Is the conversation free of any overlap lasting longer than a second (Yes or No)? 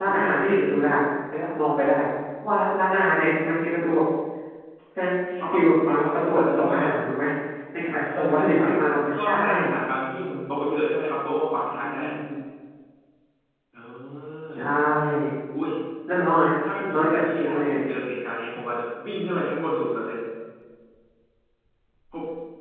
No